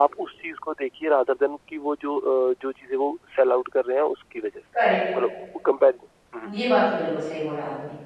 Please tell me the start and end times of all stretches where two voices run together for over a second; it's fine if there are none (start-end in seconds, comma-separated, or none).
none